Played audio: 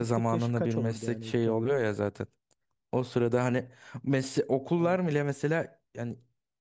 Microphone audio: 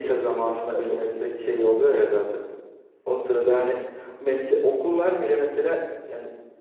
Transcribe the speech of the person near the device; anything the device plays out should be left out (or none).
none